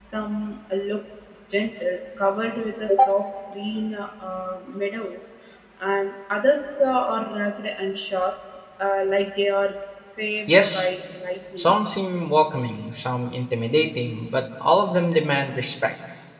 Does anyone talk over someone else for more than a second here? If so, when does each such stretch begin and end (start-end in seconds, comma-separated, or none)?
none